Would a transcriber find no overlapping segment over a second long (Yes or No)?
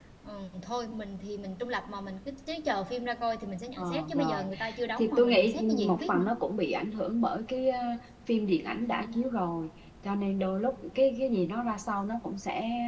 No